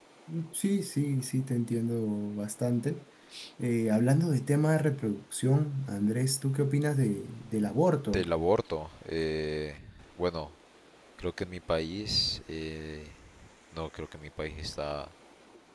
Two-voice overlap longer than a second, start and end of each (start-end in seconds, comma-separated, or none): none